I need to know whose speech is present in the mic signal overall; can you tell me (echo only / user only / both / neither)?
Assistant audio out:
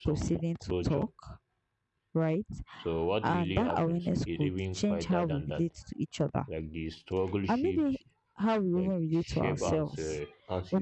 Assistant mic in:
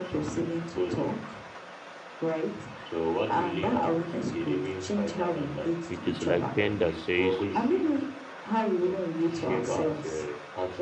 both